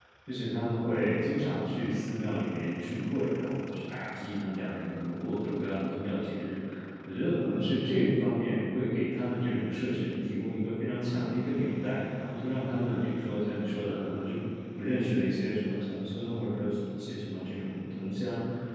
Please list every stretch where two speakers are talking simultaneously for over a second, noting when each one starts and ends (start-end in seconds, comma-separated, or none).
none